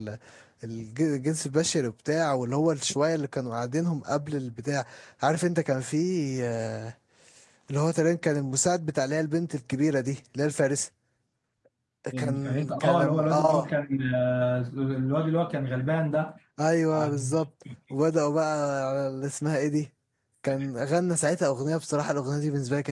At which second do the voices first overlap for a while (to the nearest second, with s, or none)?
12 s